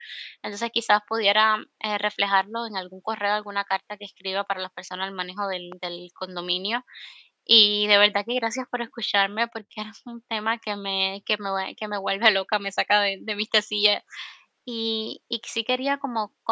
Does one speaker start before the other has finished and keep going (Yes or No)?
No